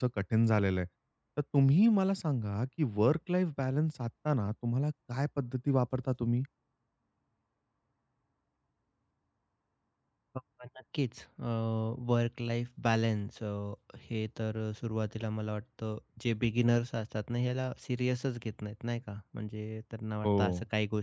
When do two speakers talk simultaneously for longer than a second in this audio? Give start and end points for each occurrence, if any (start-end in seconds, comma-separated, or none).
none